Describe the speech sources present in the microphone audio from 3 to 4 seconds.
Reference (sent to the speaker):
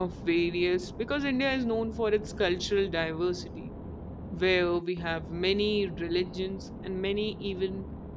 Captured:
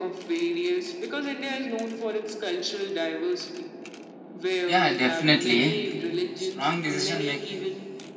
echo only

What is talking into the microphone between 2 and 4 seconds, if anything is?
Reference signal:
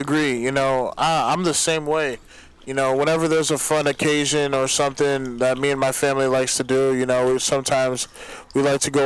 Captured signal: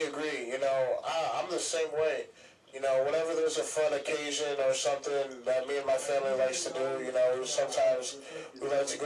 echo only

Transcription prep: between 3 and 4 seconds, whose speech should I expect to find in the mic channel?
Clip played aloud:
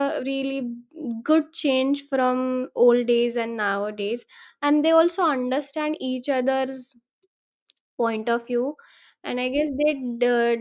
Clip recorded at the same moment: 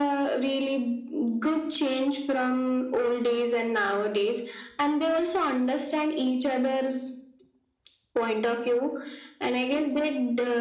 echo only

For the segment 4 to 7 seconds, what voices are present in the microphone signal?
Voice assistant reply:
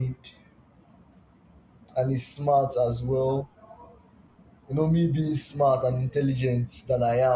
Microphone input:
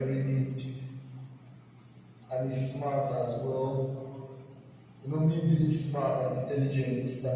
echo only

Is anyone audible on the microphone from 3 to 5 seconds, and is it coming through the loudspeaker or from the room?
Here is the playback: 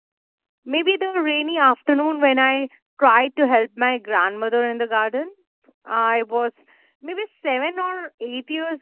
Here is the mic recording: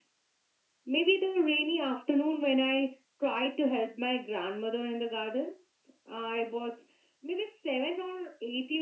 echo only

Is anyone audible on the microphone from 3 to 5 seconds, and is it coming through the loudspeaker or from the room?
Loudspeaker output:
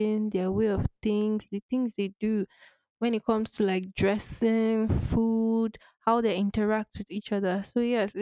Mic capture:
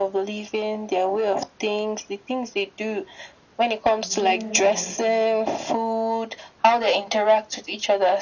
both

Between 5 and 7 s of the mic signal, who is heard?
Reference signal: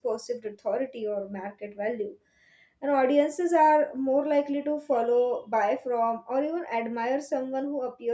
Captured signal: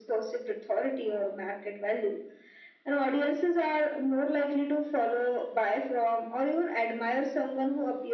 echo only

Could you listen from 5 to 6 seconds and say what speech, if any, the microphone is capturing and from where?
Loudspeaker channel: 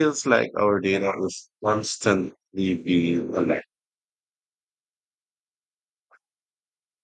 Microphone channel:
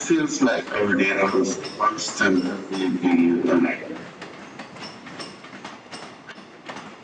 neither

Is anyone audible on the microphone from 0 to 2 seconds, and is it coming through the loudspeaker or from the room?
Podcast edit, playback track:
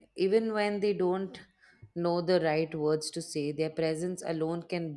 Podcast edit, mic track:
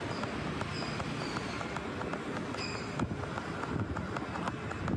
neither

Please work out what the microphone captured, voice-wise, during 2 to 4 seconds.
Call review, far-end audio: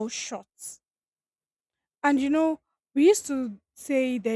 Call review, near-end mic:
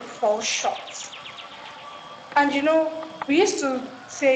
echo only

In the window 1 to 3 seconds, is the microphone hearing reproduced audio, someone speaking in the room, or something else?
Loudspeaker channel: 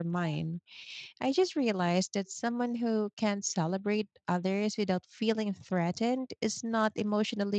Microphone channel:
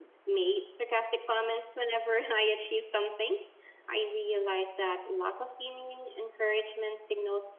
user only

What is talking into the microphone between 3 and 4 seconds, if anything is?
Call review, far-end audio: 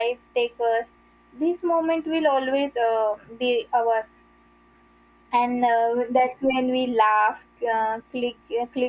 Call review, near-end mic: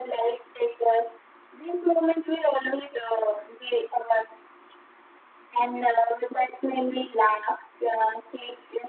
echo only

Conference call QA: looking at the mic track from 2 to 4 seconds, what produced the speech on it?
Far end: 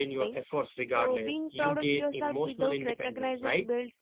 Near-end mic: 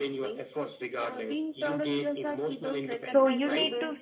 both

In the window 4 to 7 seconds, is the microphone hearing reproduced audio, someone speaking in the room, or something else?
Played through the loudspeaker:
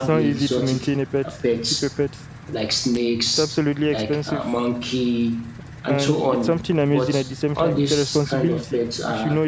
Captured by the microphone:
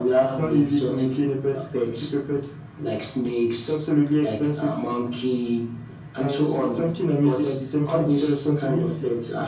echo only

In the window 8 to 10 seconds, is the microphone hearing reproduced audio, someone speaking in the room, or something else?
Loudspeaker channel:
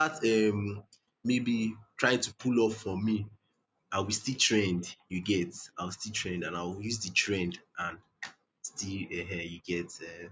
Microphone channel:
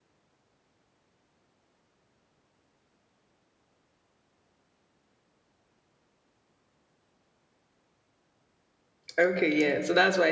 user only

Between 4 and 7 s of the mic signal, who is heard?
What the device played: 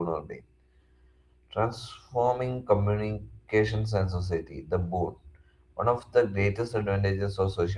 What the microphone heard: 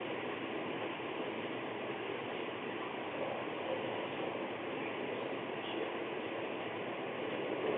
neither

